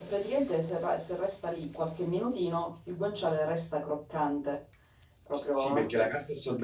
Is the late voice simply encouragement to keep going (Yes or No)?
No